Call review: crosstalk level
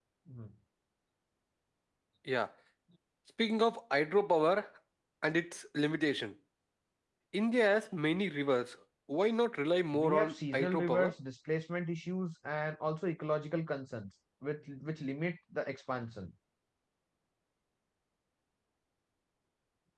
present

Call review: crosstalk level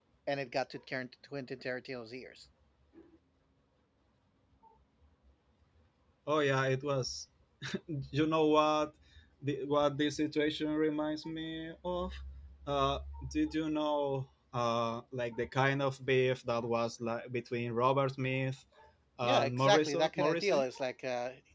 present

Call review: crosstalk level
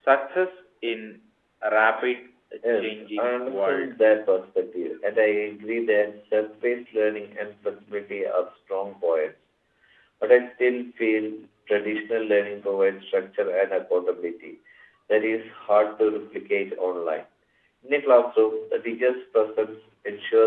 present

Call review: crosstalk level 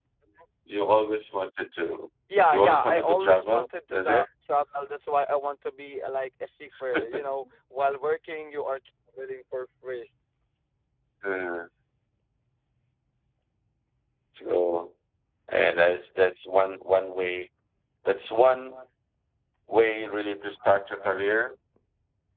present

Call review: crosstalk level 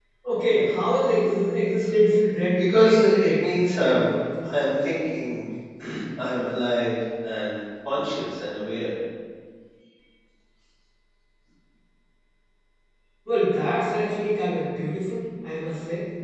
present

